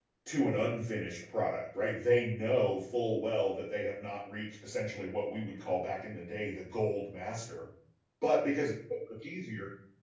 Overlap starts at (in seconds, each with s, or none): none